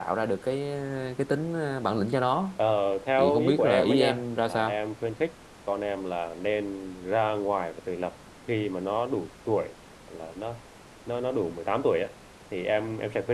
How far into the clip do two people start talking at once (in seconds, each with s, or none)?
3.2 s